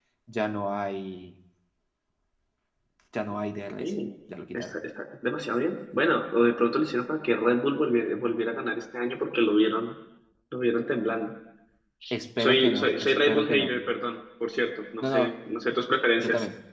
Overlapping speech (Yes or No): Yes